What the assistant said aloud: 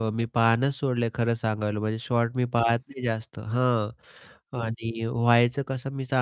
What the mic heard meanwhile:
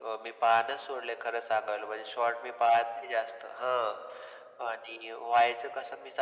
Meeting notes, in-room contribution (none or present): none